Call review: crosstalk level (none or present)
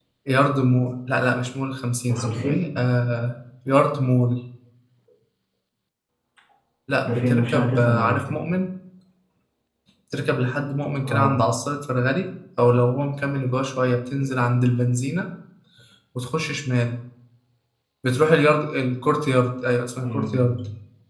present